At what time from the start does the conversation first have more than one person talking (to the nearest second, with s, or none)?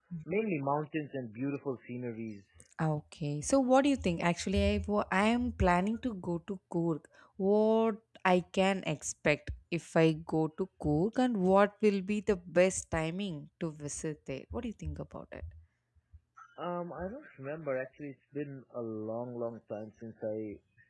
none